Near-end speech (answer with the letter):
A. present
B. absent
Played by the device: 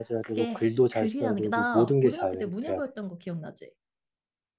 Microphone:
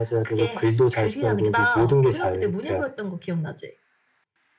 B